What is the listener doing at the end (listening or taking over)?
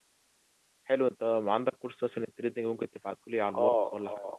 taking over